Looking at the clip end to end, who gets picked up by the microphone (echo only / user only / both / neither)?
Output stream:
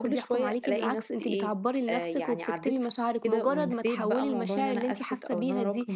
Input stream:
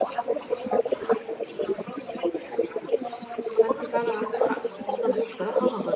both